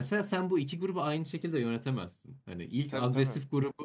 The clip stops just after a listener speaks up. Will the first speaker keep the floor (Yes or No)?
Yes